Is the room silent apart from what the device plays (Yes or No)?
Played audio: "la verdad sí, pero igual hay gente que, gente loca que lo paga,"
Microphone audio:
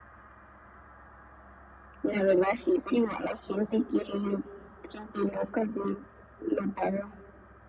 Yes